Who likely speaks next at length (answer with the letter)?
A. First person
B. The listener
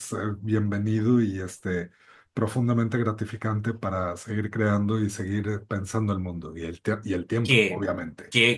B